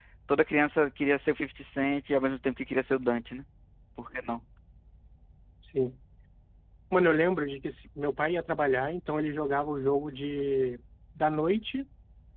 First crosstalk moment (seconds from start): none

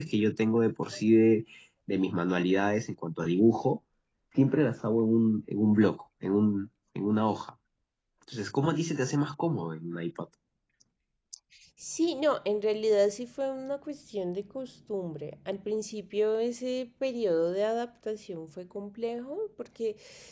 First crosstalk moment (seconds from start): none

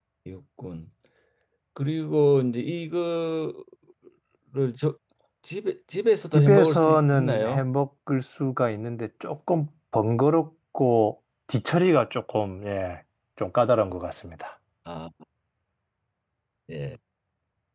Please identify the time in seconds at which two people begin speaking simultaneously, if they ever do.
6.3 s

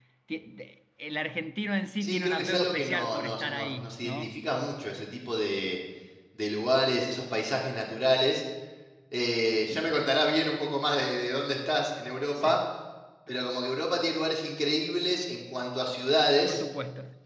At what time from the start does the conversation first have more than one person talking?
2.0 s

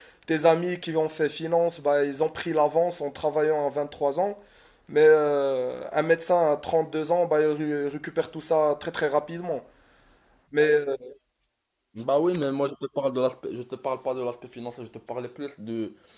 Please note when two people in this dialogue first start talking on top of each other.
none

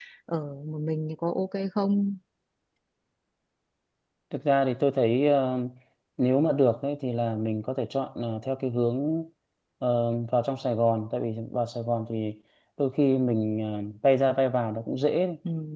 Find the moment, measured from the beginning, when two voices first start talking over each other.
none

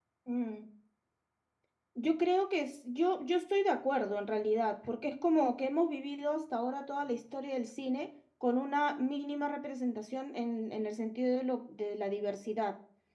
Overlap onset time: none

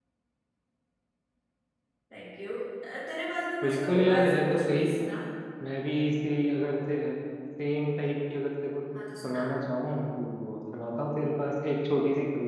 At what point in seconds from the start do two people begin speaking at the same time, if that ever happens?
3.6 s

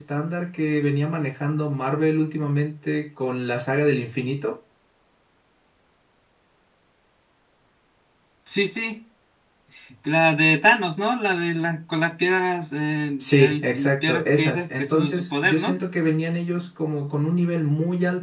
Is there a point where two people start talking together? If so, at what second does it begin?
13.2 s

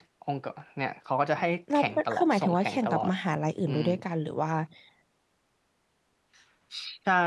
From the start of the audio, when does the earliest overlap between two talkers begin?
1.8 s

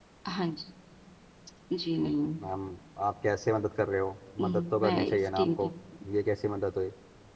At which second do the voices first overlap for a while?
4.4 s

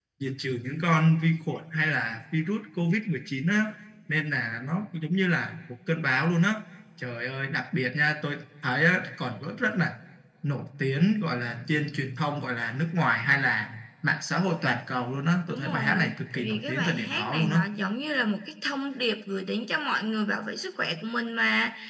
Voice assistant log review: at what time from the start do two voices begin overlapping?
15.5 s

